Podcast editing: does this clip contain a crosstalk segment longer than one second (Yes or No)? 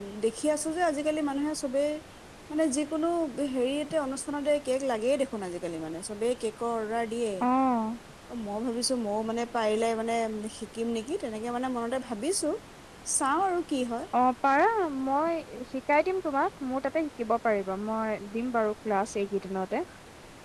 No